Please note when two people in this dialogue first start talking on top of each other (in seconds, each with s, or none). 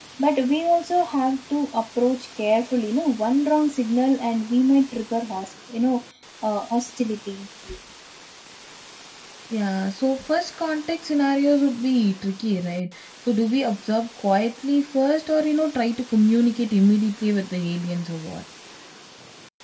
none